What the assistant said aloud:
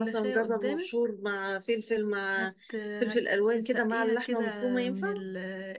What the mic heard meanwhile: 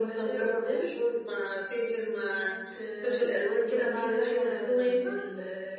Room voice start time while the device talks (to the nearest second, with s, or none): none